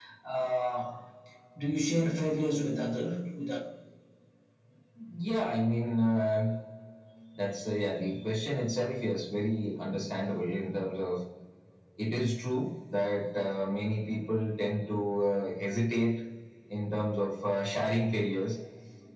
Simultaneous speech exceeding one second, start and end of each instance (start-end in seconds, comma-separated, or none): none